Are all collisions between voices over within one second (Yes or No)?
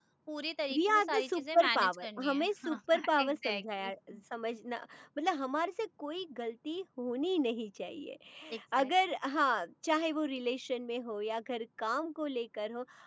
No